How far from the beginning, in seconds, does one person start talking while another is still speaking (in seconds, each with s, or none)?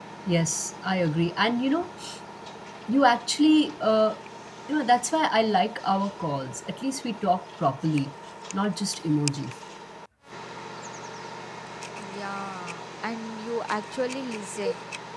none